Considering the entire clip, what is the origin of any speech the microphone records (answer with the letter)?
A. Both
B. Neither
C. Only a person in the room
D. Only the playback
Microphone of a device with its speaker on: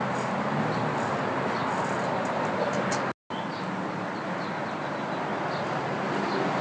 B